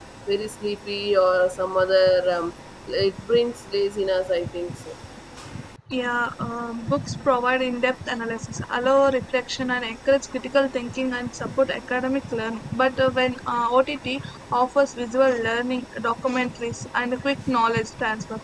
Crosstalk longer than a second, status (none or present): none